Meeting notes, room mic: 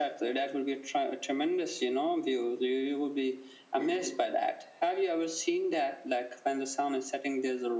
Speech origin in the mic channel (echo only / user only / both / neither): echo only